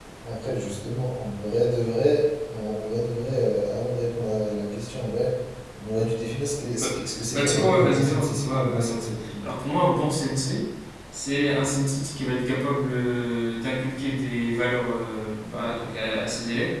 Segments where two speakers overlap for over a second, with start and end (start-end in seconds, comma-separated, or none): 7.3-9.3